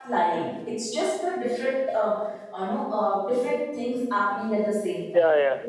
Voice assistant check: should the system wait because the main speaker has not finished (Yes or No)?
No